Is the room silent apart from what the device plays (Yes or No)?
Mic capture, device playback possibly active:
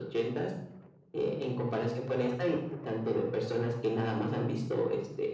Yes